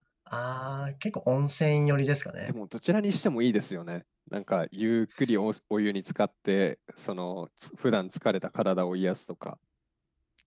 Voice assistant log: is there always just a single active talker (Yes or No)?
Yes